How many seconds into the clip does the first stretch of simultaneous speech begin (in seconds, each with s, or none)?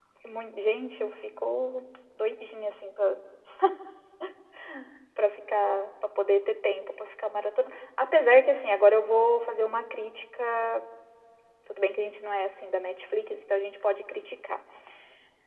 none